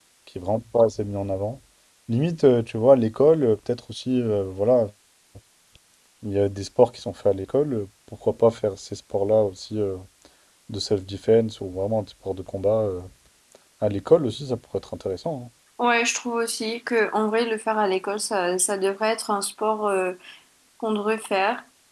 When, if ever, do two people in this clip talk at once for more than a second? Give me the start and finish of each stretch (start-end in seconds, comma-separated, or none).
none